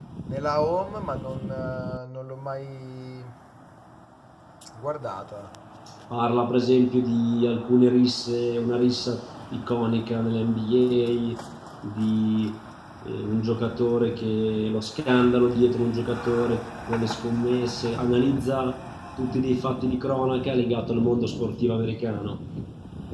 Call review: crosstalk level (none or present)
none